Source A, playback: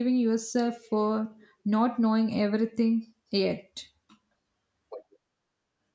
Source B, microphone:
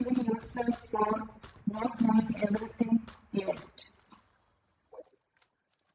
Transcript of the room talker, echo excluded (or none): none